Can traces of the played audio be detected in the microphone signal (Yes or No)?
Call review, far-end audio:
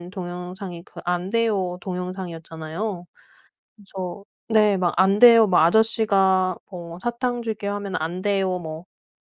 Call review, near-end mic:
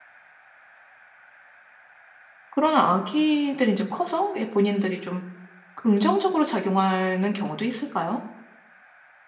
No